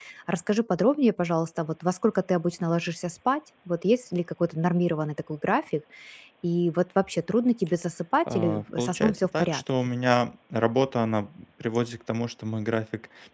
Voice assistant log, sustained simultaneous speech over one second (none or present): present